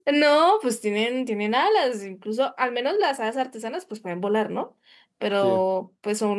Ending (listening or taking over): listening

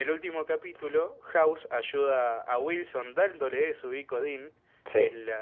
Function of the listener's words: listening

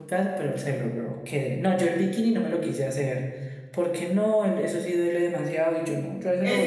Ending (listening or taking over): taking over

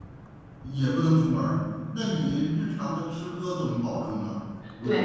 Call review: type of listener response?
taking over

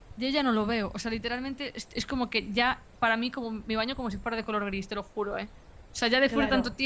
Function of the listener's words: taking over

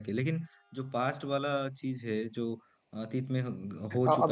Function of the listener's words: taking over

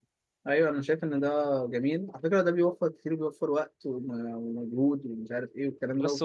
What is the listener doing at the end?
taking over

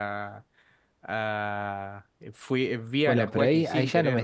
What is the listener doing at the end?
taking over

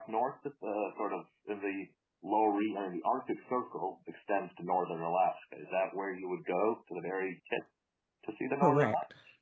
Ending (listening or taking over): taking over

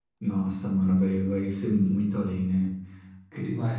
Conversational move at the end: listening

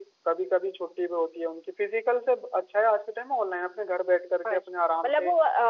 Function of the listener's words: taking over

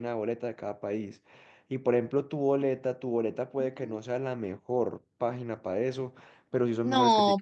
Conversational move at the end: taking over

